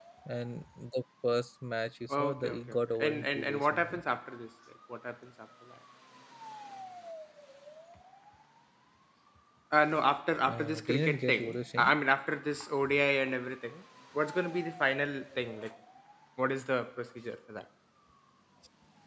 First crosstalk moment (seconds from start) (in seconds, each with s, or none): 2.1 s